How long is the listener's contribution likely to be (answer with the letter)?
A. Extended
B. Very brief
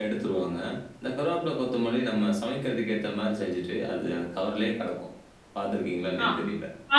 A